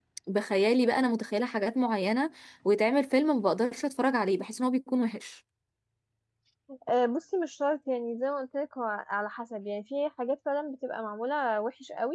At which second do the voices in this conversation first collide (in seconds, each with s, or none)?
none